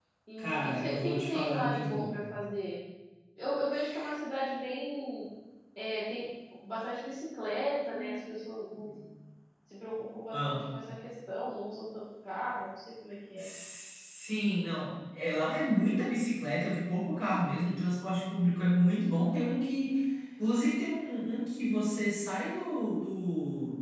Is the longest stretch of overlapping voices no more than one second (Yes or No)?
No